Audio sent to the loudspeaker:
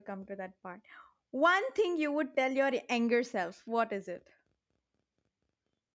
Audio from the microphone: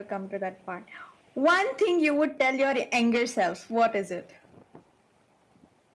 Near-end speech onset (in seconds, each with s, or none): none